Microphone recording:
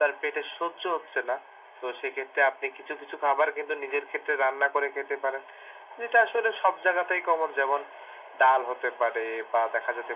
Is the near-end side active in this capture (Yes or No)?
No